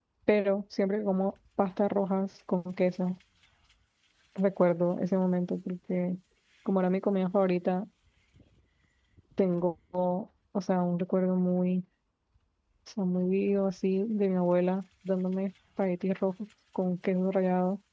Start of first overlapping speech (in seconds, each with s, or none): none